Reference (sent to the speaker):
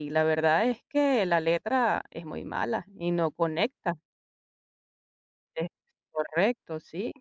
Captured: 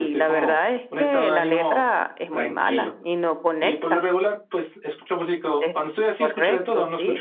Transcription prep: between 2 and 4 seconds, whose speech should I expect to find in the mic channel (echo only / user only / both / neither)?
both